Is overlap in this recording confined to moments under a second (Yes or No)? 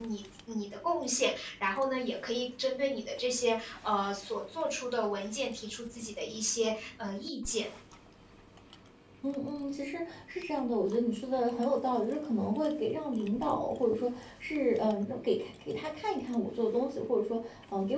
Yes